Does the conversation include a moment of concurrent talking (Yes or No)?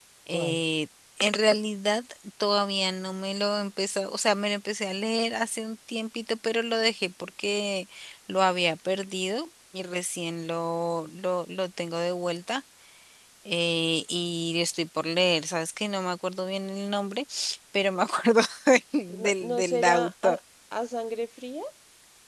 Yes